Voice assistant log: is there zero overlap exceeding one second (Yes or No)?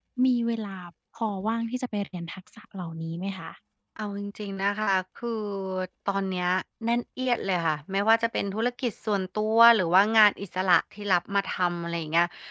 Yes